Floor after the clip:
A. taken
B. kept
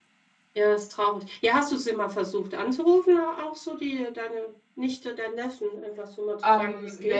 A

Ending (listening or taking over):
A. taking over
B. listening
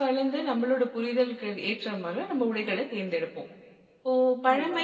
B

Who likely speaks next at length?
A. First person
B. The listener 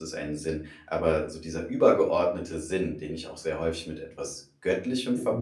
A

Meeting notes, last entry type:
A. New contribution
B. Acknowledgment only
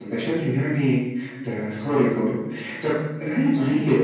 B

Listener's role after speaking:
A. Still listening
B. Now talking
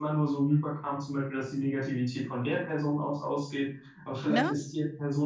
A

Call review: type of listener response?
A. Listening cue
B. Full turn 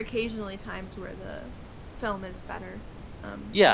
B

